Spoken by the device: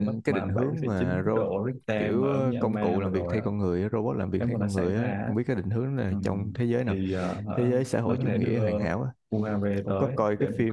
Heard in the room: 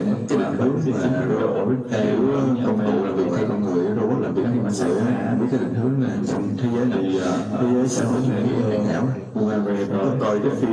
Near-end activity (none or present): present